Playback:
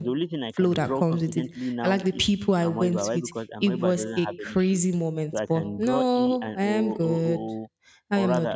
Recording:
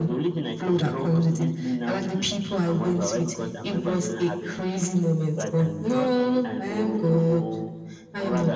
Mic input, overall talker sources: echo only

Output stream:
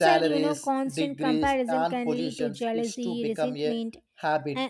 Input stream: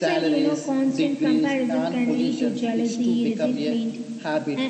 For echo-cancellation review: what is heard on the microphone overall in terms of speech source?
echo only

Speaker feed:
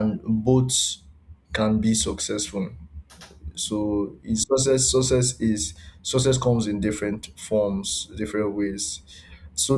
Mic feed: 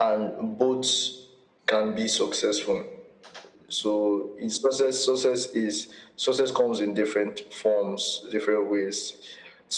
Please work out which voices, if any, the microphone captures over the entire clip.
echo only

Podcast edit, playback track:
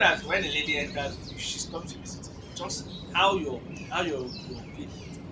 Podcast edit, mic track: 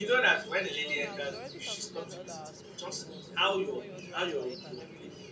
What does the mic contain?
both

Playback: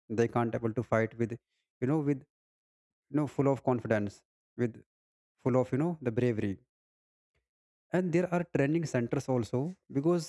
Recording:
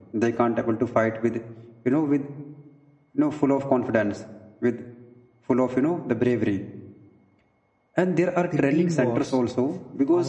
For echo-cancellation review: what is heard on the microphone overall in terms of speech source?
both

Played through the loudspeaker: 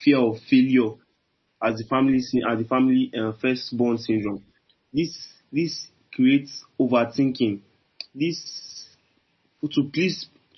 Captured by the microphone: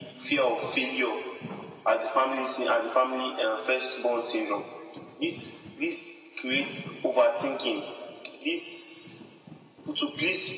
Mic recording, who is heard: echo only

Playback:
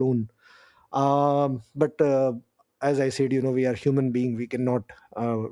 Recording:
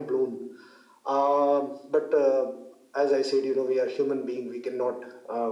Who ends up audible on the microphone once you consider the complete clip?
echo only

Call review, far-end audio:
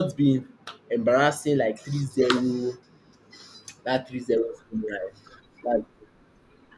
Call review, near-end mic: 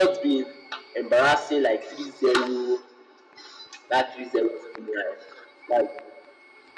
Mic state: echo only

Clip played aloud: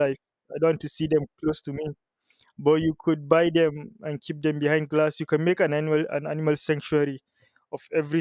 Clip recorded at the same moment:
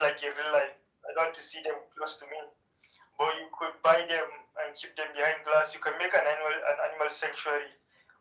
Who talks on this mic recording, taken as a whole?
echo only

